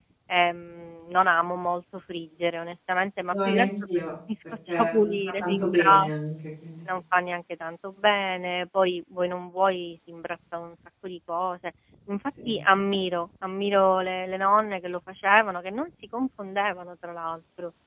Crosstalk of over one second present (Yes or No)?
Yes